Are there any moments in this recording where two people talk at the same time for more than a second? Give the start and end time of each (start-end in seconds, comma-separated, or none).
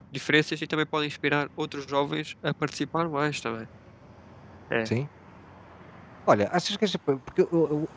none